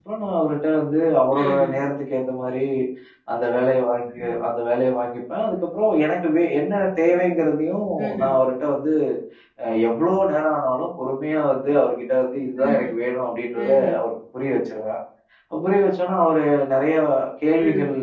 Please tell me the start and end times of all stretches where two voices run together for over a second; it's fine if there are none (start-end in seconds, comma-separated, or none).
none